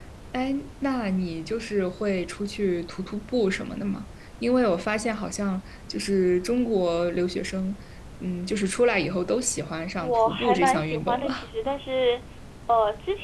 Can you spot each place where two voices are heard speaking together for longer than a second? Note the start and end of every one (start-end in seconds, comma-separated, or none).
10.0-11.5